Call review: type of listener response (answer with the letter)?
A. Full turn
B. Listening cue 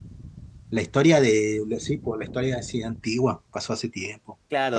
A